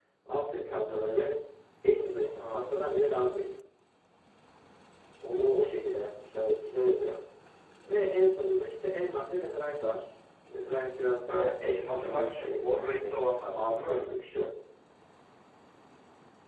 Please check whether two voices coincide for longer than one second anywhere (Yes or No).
Yes